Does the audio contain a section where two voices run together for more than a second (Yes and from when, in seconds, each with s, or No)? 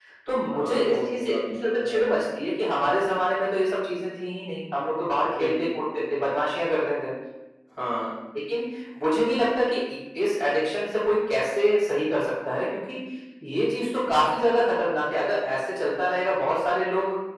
Yes, from 0.5 s